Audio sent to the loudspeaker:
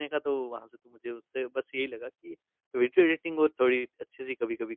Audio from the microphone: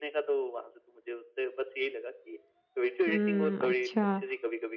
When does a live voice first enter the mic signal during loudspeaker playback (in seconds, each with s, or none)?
3.1 s